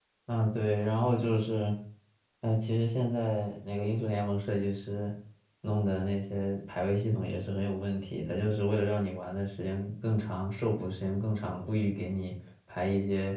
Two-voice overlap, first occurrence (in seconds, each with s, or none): none